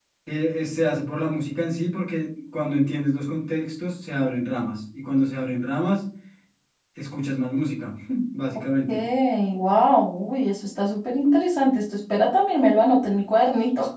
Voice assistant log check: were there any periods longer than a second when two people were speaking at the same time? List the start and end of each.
none

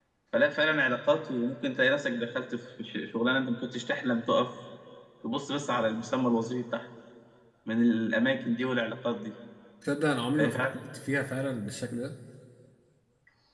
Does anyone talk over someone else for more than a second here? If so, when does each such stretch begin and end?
none

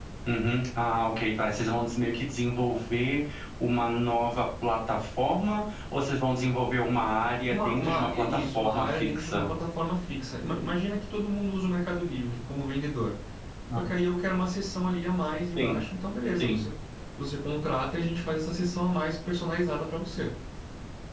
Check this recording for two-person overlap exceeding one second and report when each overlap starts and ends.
7.5-9.5

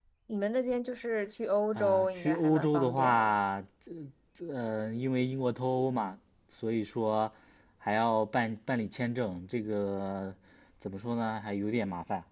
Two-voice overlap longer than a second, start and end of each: 1.8-3.3

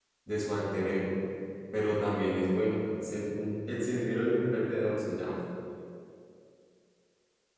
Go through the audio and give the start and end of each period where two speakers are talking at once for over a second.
none

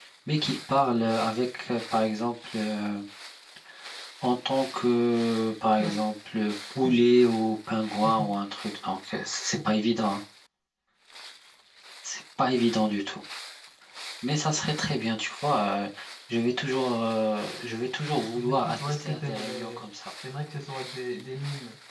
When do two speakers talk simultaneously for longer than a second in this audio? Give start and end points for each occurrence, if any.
18.1-19.9

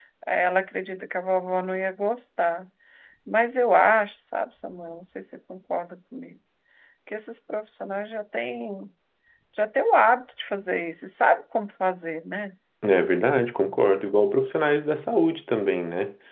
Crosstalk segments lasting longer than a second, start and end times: none

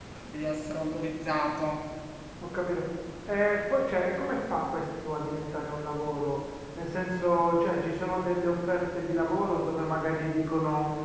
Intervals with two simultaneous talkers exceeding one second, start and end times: none

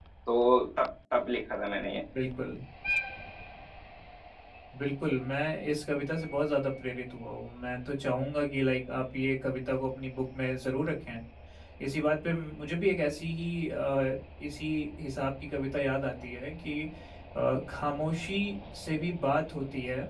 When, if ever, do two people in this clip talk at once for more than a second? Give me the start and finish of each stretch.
none

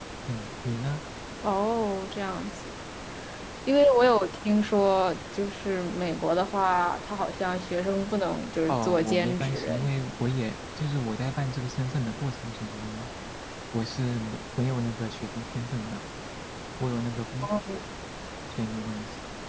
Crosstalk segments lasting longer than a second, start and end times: 8.7-9.9

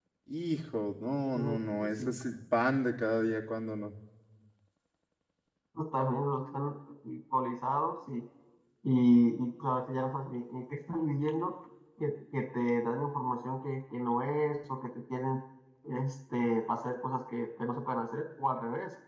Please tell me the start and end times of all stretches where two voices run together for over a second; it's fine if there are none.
none

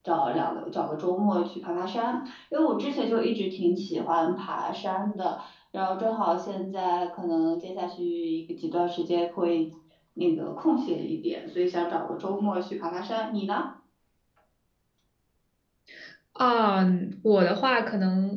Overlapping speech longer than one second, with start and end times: none

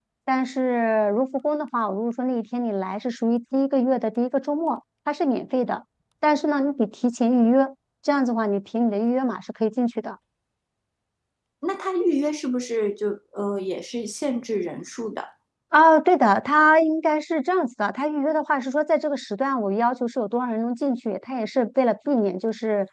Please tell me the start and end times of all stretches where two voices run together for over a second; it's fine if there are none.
none

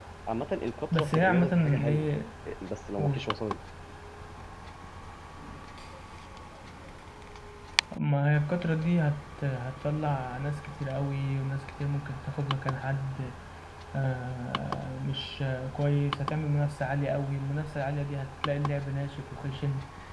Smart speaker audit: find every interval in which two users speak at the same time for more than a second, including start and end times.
0.9-2.1

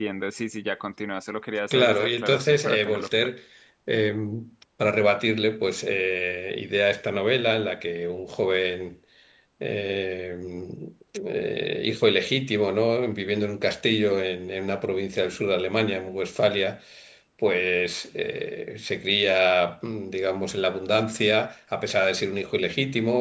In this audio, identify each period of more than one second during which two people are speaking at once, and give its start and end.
1.7-3.3

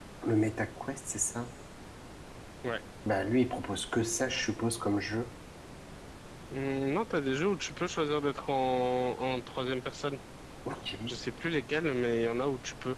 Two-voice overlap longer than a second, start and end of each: none

